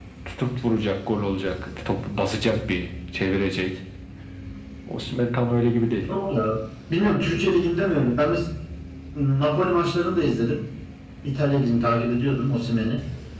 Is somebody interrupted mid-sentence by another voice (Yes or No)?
No